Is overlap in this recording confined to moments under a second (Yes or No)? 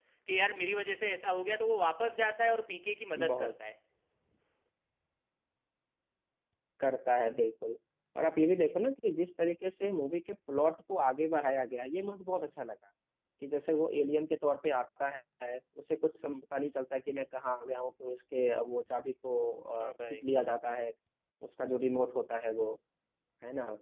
Yes